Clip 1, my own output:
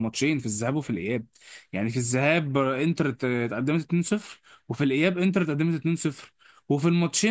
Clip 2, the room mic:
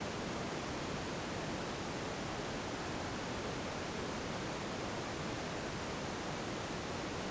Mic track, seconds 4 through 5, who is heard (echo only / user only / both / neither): neither